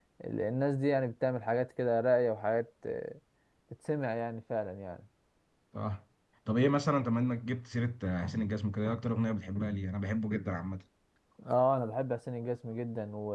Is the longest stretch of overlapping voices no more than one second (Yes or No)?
Yes